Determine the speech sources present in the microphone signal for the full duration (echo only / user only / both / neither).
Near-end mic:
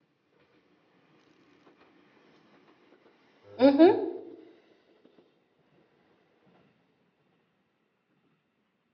user only